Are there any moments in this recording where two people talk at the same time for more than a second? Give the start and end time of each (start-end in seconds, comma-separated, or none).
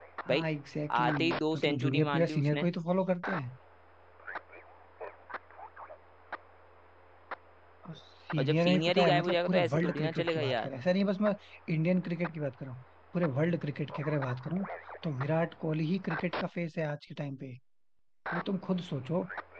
1.0-2.6, 8.4-10.7